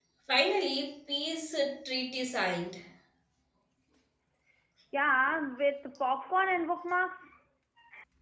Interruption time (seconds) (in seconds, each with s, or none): none